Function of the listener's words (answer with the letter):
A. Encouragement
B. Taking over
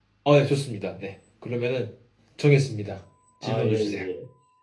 B